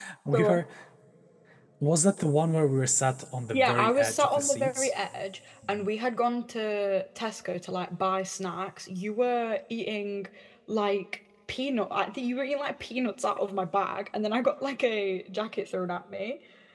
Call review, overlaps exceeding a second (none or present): present